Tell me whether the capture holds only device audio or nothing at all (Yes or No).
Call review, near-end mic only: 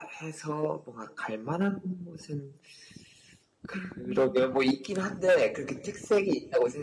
No